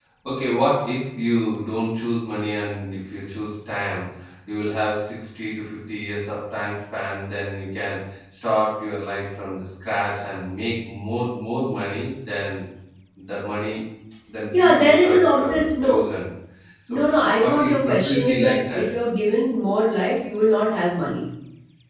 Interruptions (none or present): present